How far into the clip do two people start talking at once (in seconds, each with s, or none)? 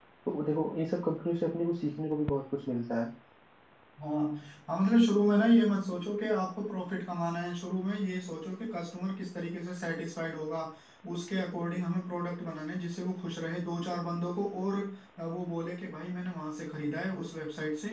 none